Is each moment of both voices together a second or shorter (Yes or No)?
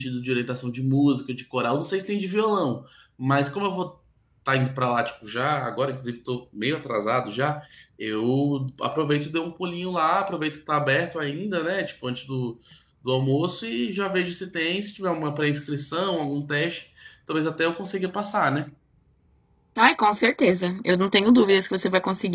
Yes